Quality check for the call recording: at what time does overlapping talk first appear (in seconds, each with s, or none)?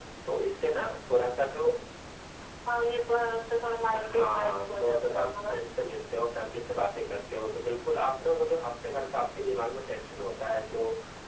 3.9 s